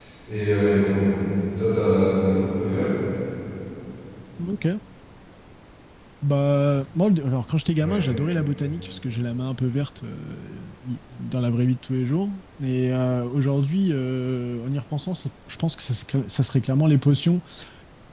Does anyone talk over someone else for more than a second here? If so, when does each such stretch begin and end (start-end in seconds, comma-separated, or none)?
none